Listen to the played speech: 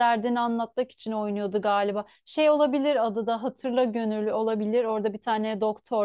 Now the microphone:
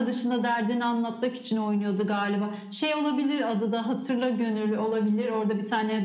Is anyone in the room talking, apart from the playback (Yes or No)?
No